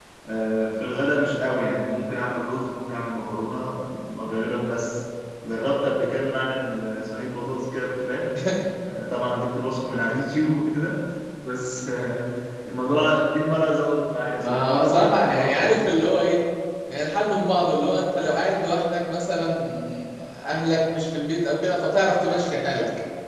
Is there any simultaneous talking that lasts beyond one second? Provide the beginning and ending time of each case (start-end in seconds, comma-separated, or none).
14.4-15.8